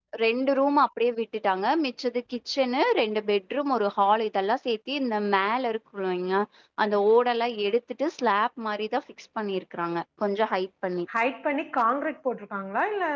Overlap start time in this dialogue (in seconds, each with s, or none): none